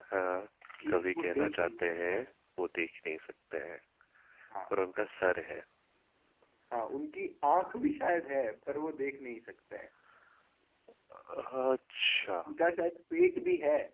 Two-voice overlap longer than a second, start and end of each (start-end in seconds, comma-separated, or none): 0.9-2.3